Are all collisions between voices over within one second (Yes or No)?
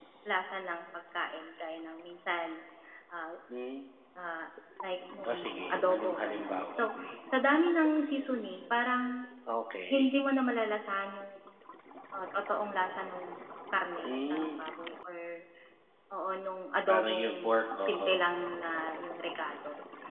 No